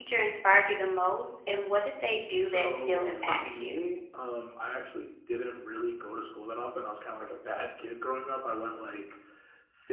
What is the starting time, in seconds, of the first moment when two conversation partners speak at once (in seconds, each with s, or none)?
2.3 s